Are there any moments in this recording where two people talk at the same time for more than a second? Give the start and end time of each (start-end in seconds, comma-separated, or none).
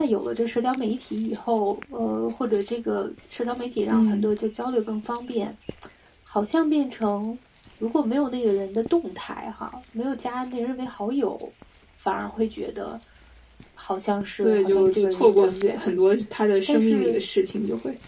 14.4-16.0